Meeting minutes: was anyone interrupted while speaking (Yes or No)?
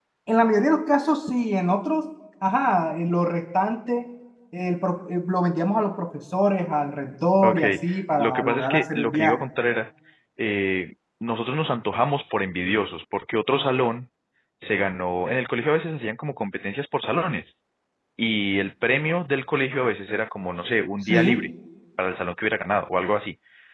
Yes